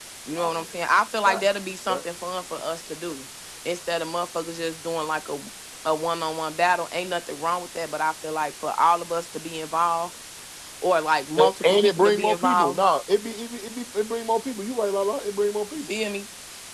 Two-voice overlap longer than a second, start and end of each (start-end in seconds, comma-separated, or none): 11.4-12.8